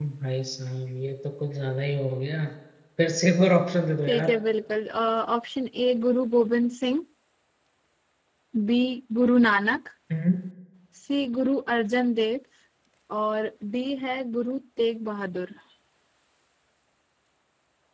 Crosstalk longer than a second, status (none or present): none